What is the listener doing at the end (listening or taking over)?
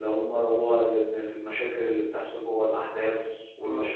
listening